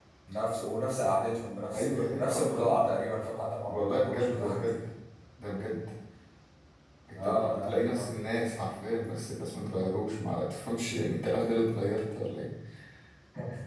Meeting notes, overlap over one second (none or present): present